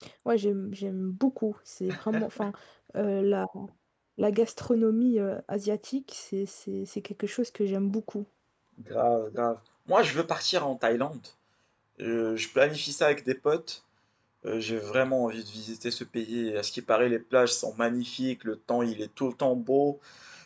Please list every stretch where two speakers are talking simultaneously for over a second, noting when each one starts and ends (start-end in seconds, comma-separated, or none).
none